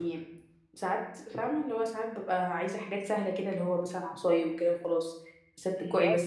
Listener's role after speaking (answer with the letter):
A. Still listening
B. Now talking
B